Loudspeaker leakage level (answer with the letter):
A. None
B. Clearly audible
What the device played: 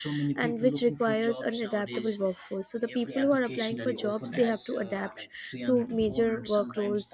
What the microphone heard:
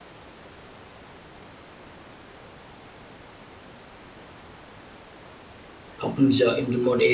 A